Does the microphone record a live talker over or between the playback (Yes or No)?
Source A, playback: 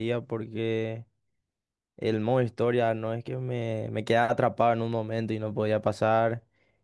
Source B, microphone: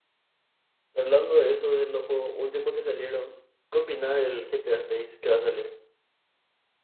Yes